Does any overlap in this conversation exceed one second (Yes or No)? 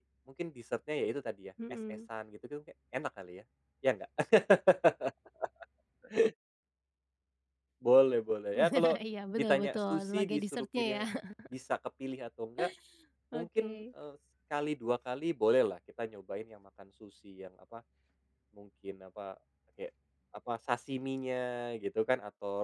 Yes